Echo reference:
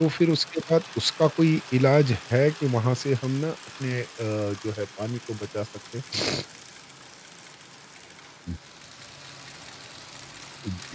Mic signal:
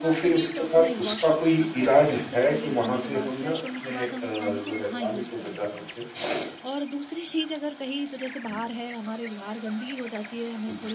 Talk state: both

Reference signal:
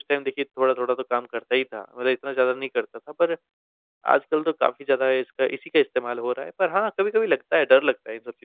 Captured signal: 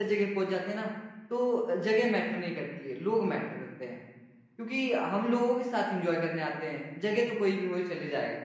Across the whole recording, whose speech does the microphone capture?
user only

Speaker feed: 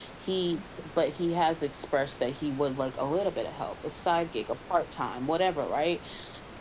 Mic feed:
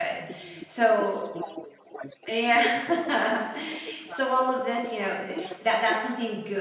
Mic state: both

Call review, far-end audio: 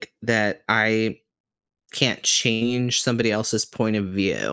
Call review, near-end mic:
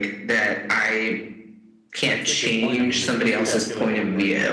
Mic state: both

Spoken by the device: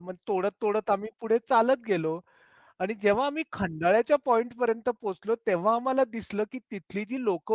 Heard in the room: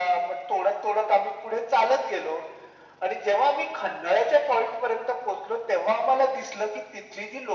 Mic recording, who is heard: echo only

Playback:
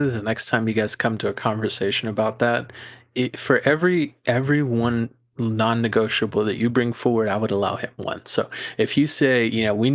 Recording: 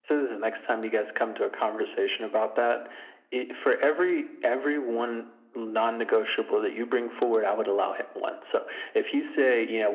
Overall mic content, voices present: echo only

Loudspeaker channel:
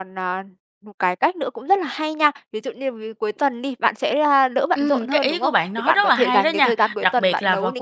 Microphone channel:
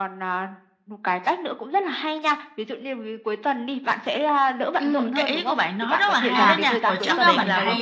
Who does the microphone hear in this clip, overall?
both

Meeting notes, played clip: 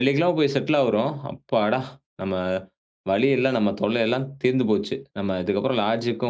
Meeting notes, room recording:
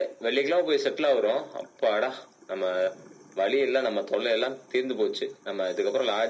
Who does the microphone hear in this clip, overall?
echo only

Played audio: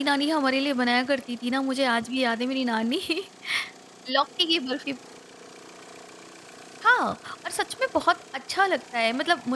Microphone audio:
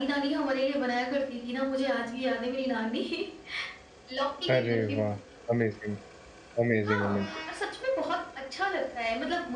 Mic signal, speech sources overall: both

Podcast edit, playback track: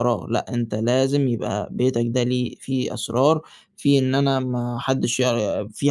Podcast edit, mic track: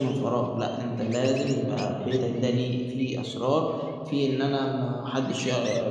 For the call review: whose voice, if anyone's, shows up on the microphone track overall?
echo only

